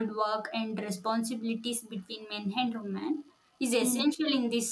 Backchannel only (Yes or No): Yes